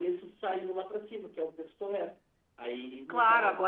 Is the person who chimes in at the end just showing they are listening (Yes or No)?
No